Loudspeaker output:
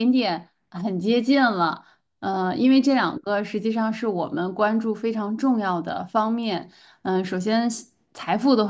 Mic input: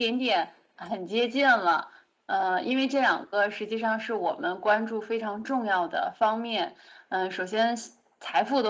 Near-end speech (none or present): none